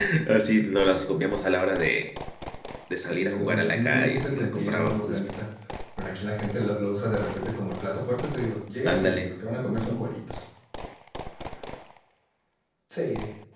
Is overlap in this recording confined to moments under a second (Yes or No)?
No